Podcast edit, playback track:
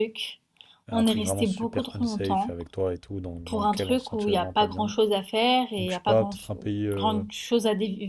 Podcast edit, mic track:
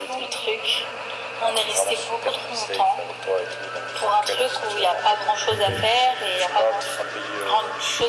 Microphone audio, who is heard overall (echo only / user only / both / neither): both